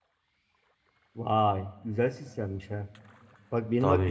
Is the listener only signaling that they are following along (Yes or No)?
Yes